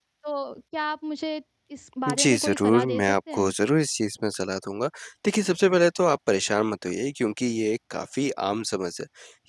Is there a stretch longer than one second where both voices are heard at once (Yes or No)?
Yes